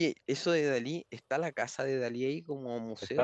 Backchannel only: No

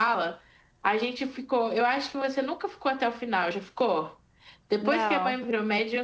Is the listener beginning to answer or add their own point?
No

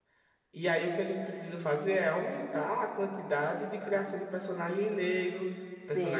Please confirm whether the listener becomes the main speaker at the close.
Yes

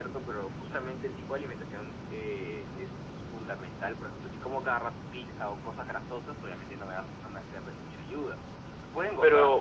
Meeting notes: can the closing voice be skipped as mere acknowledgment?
No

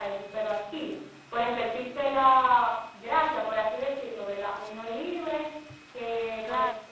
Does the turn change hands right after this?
No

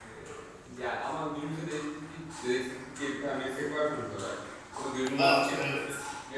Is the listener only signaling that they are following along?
Yes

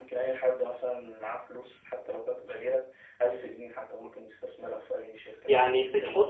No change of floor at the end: No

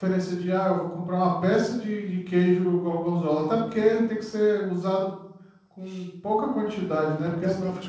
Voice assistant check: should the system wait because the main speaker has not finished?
No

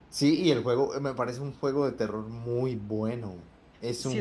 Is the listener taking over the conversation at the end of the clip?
Yes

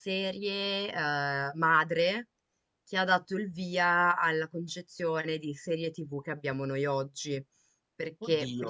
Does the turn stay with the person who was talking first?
Yes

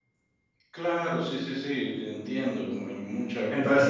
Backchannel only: No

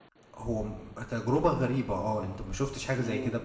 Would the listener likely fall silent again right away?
No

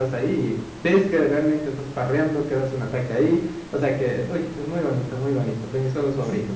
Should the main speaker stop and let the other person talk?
Yes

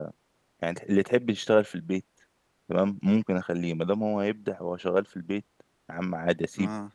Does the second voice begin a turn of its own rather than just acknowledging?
No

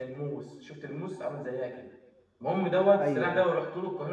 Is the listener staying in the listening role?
Yes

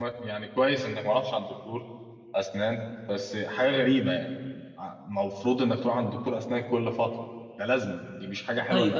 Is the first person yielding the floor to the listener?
Yes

